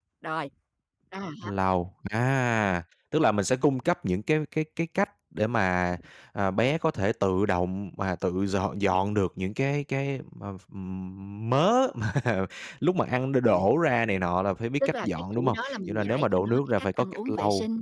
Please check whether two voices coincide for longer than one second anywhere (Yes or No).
Yes